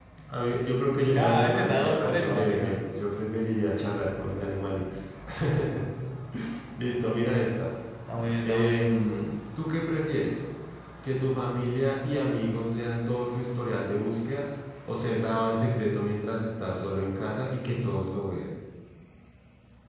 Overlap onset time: 1.1 s

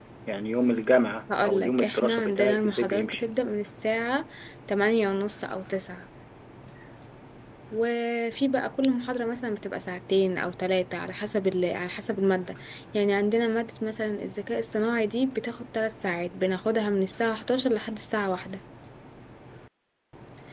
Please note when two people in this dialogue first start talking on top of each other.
1.3 s

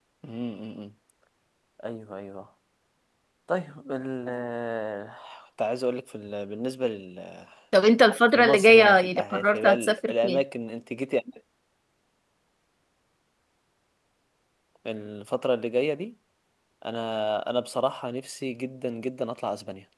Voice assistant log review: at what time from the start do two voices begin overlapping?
8.4 s

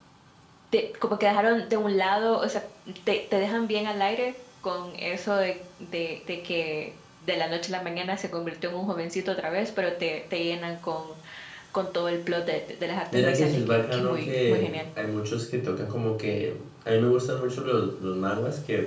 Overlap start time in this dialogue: 13.1 s

